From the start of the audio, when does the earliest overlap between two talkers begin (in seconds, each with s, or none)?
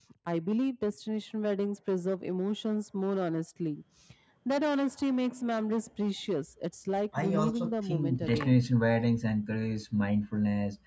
7.1 s